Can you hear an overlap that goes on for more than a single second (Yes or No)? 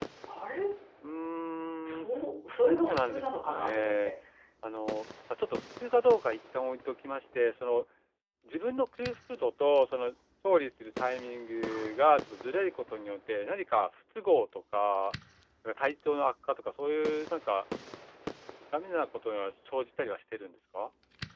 Yes